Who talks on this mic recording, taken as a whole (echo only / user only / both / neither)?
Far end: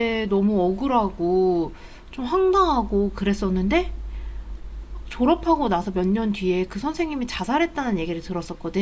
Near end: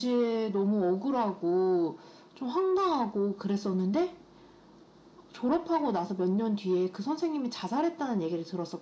echo only